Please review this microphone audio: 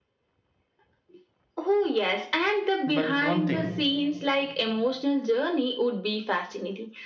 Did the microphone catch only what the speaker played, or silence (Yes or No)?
No